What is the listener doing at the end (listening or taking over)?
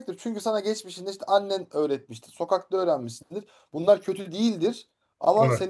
listening